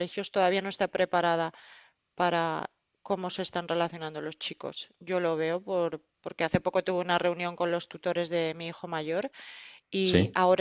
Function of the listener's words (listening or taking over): listening